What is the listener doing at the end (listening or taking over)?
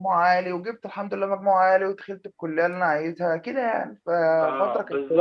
taking over